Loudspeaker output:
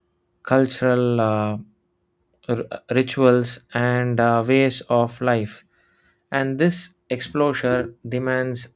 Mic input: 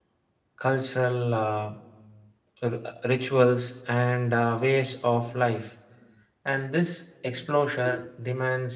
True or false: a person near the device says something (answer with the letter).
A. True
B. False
B